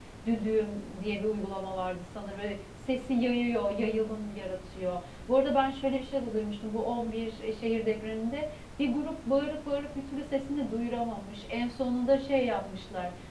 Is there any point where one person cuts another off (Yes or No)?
No